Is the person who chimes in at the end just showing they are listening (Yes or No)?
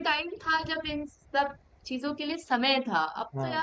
Yes